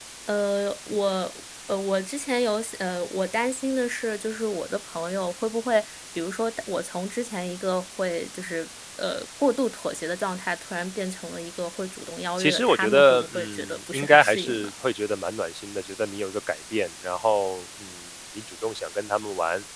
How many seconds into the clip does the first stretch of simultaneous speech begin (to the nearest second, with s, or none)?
12 s